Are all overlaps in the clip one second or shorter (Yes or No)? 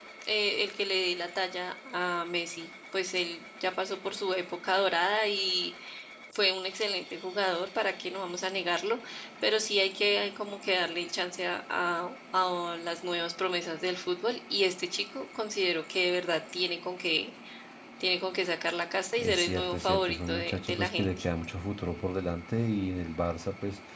No